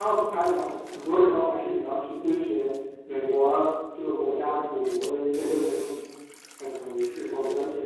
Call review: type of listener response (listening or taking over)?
listening